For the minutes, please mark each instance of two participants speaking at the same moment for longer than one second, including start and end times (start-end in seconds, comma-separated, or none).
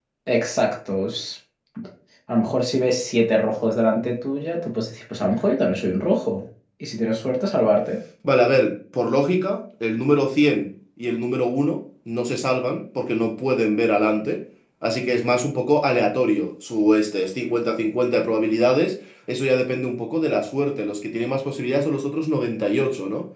none